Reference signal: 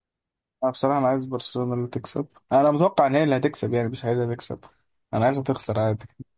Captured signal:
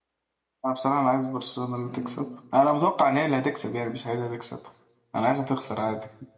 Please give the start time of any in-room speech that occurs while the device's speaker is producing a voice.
1.8 s

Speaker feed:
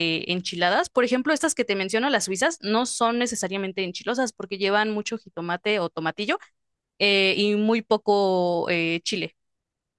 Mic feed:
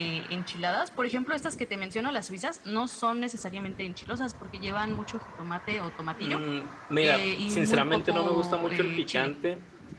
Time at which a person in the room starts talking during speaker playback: 6.1 s

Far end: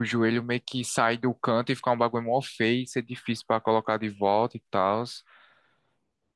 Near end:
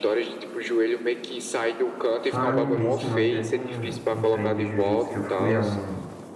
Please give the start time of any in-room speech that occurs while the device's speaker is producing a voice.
2.3 s

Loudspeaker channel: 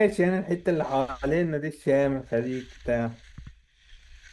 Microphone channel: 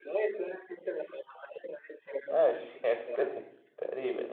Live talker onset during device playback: 2.3 s

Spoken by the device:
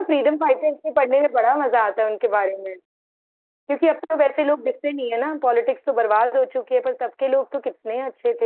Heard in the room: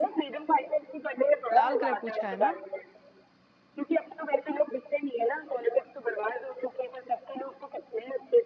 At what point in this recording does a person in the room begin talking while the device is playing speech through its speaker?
1.5 s

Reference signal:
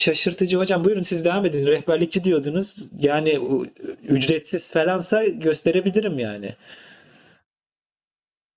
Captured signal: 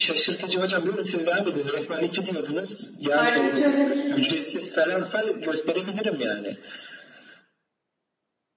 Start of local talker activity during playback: 3.1 s

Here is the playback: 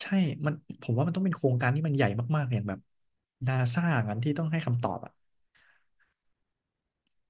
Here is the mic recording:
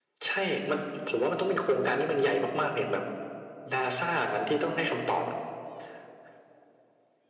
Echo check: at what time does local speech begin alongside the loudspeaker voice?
none

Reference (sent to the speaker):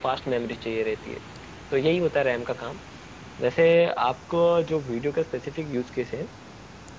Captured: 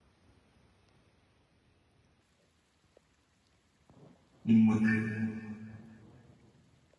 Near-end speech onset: 4.5 s

